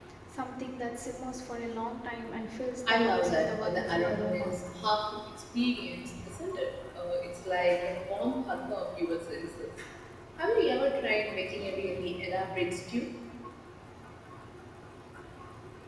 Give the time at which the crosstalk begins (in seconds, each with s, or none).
2.9 s